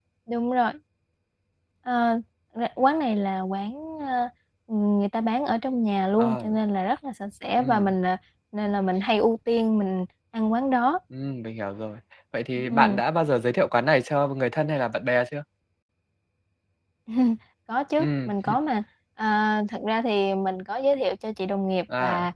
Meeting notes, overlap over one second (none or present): none